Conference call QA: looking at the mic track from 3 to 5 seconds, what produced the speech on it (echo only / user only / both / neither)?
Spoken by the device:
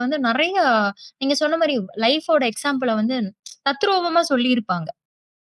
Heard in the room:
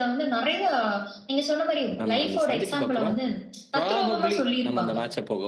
both